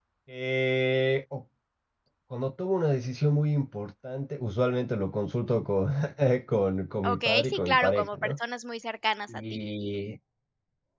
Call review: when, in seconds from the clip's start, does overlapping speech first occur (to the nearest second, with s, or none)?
7 s